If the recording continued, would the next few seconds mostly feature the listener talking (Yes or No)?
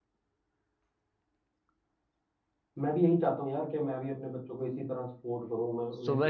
Yes